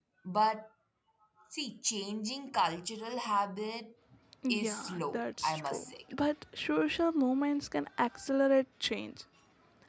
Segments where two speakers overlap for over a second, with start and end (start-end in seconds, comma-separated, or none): 4.5-5.9